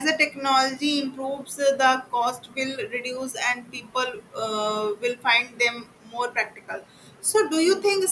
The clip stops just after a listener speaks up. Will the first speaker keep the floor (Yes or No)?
Yes